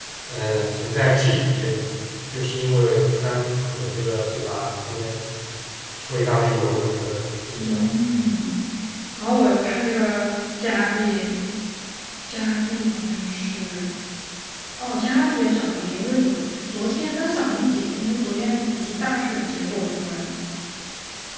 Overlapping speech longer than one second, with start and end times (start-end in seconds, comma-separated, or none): none